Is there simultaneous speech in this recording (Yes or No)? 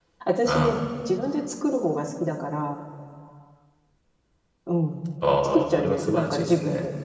Yes